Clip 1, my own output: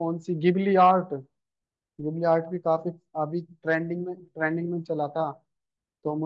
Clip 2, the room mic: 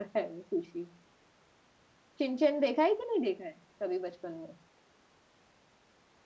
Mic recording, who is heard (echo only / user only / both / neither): user only